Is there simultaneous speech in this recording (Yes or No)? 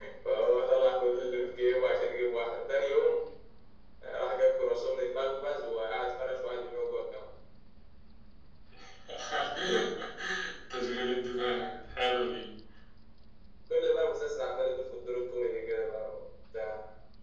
No